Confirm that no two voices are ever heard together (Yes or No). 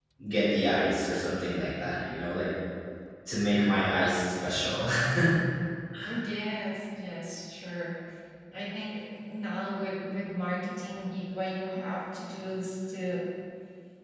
Yes